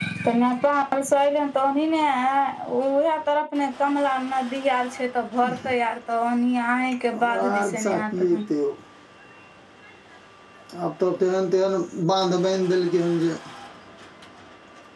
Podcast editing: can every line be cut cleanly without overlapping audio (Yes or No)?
No